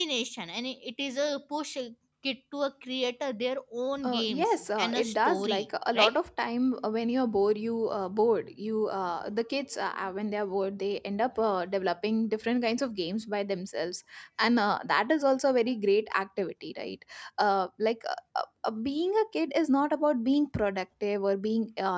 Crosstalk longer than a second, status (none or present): present